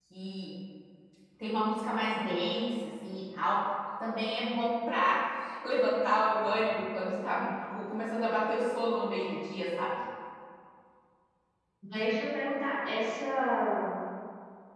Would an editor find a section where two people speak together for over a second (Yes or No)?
No